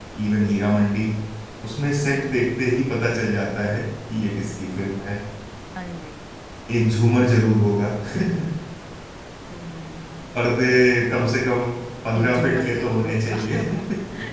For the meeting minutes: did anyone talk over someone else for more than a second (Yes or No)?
Yes